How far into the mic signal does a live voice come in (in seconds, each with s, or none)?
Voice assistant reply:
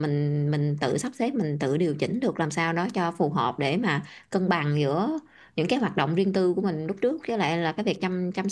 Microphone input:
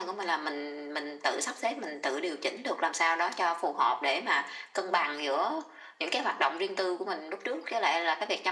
none